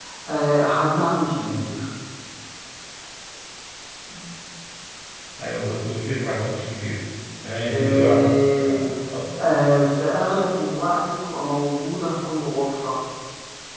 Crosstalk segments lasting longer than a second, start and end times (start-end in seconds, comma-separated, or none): 7.7-8.9